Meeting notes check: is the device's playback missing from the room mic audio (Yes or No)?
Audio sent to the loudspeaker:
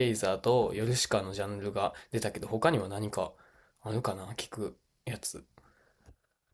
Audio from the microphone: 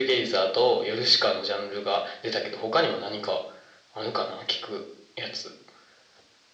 No